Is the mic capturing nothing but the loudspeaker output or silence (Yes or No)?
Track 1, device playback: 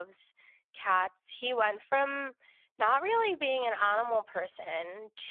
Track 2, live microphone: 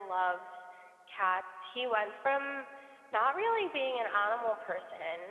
Yes